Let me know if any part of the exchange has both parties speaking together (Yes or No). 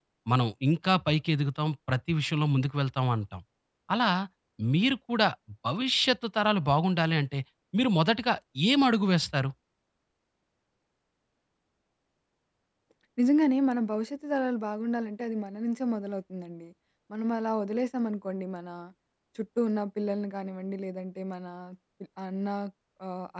No